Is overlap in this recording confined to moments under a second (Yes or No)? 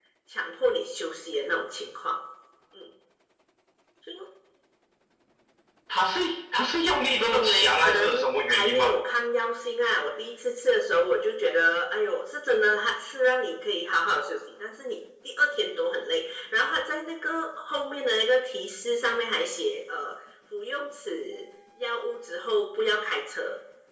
No